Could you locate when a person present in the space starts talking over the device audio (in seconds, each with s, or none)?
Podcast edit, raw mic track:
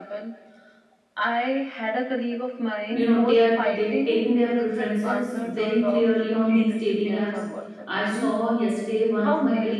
2.9 s